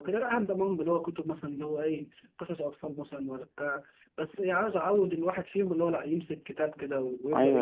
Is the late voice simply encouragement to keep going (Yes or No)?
No